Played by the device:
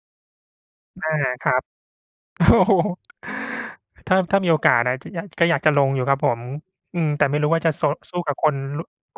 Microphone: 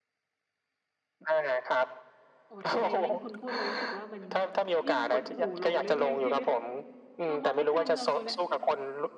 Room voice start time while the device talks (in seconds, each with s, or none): 2.5 s